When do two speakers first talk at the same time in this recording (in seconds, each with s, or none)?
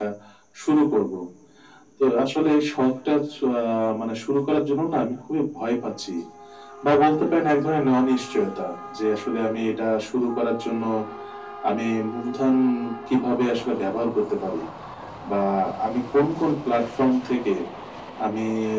none